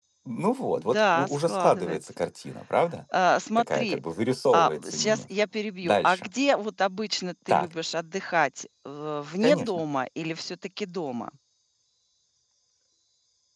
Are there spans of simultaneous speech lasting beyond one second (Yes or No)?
Yes